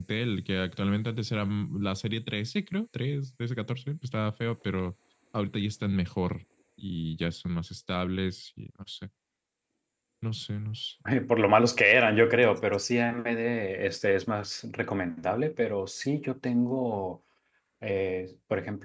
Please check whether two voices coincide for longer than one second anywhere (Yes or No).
No